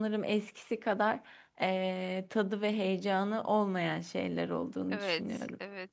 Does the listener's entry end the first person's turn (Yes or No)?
Yes